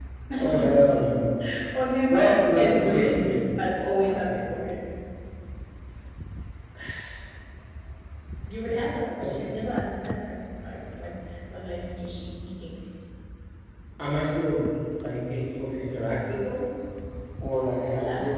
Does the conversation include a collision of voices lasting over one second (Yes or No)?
Yes